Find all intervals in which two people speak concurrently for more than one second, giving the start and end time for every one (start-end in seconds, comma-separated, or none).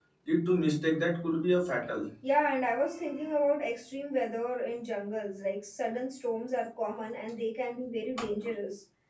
none